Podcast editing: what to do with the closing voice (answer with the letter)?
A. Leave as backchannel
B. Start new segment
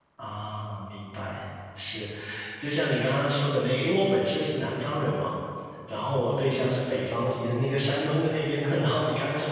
A